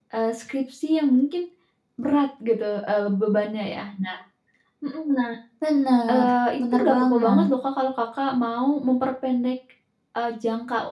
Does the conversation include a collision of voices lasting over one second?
Yes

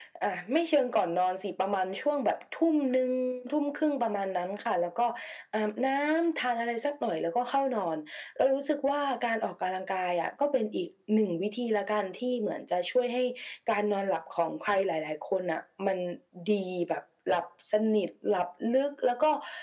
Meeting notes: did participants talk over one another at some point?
No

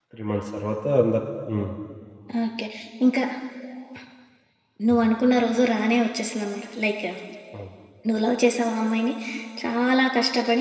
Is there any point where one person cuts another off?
No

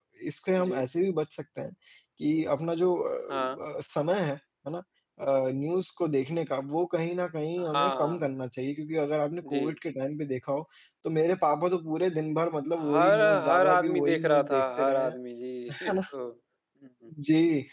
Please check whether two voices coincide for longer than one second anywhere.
Yes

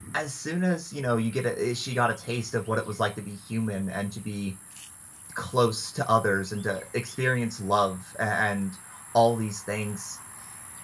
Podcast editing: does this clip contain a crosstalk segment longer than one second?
No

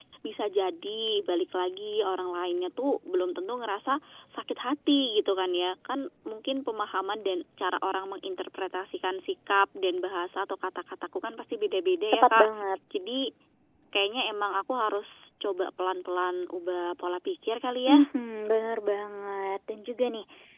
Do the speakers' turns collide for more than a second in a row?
No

